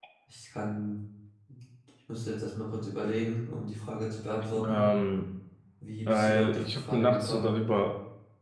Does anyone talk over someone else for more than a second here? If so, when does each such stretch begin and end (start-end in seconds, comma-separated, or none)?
6.1-7.6